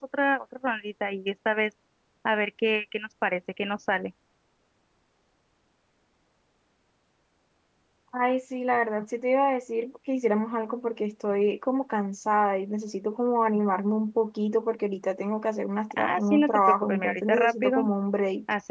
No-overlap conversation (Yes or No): No